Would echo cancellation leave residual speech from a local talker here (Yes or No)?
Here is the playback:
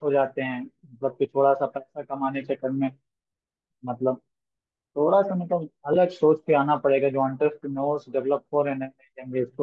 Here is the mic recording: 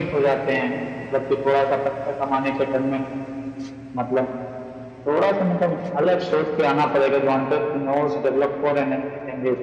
No